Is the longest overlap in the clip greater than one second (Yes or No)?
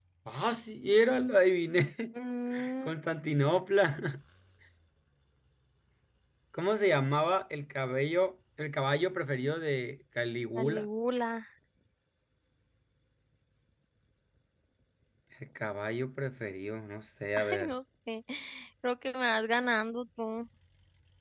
No